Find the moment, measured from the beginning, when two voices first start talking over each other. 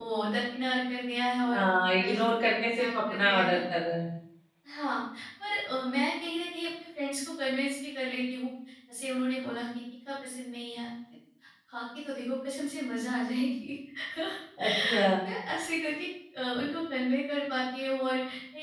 1.5 s

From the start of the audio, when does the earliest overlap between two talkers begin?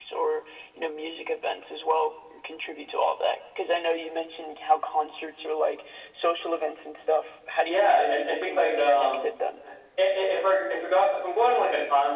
7.7 s

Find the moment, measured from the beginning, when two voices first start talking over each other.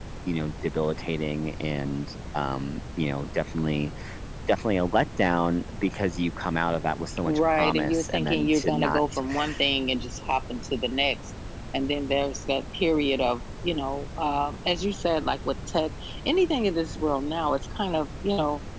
7.3 s

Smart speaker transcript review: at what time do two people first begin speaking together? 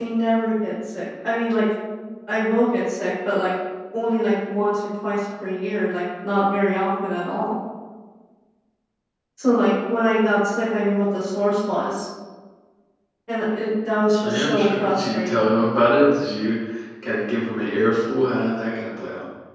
14.2 s

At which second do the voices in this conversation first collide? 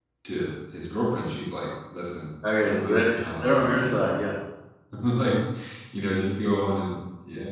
2.4 s

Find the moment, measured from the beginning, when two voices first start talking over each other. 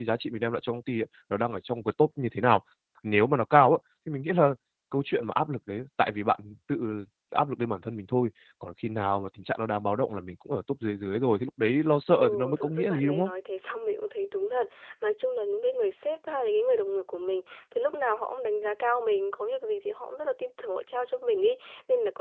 12.1 s

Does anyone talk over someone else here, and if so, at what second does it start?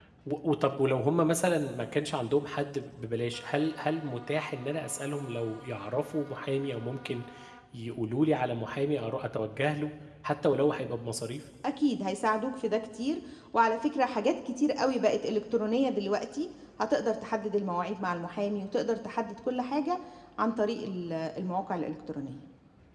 none

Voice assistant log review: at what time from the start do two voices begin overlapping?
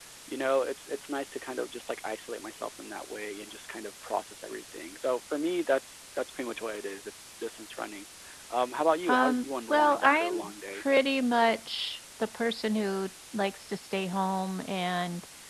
9.1 s

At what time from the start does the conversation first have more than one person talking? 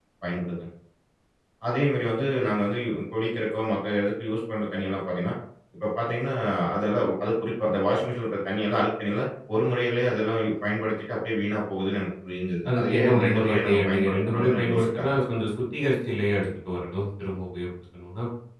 12.6 s

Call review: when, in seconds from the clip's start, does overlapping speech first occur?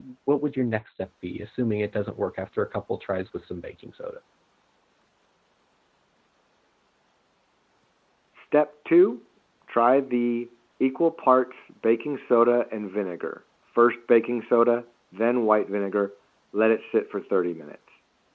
none

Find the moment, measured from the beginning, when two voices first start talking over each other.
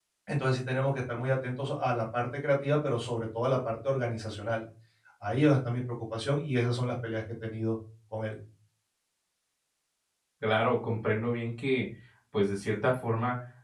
none

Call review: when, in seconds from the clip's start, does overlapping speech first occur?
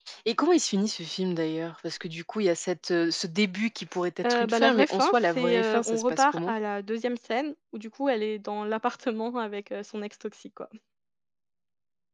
4.2 s

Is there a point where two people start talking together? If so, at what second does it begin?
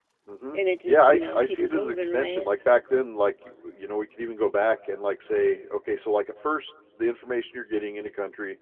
0.5 s

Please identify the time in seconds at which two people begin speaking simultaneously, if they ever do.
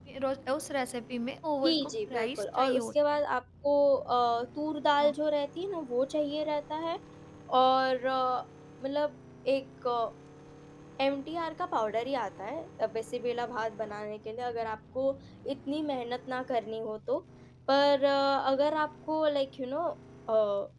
1.6 s

